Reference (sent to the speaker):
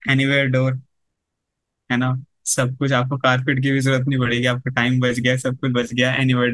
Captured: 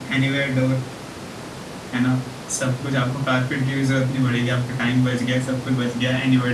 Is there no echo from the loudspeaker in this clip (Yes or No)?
No